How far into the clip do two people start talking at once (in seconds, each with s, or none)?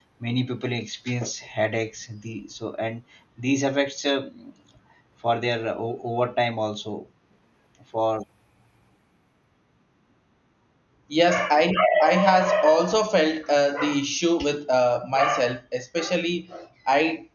none